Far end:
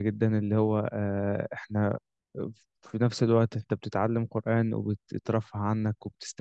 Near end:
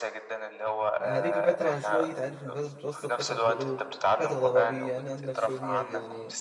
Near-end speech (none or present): present